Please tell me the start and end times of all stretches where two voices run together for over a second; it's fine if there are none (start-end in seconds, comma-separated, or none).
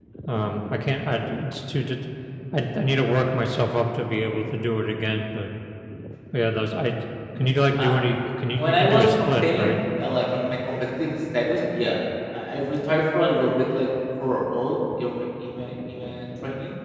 8.6-9.8